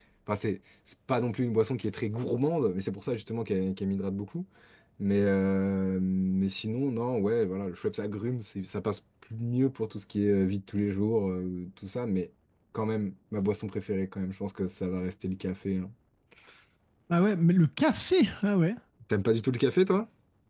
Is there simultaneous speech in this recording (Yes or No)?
No